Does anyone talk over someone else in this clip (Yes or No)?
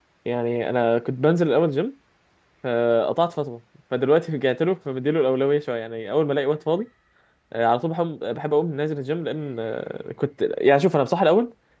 No